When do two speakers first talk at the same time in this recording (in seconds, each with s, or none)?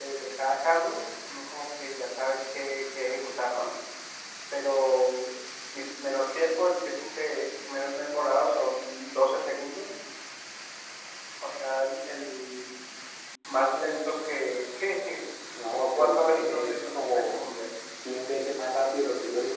15.6 s